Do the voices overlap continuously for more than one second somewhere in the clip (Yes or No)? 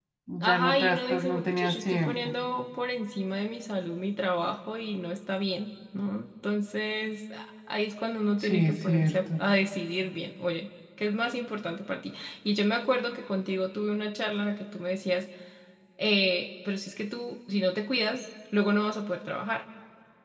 Yes